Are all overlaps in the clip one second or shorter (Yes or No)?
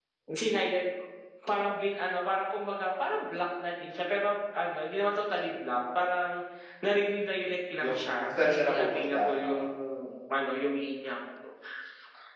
No